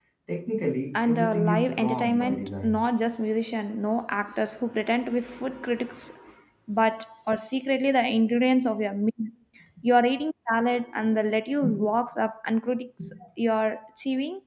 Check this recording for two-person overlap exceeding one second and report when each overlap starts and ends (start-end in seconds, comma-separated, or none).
1.0-2.8